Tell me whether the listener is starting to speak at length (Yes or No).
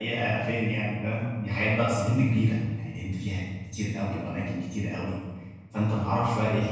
No